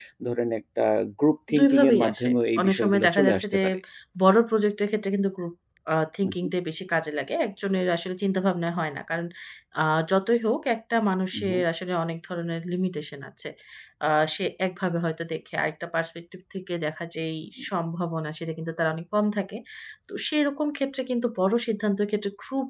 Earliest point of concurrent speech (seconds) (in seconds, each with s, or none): 1.6 s